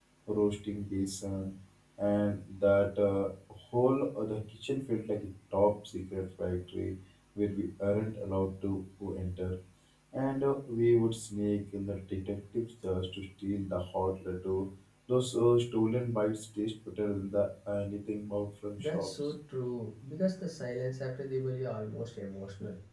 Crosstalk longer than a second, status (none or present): none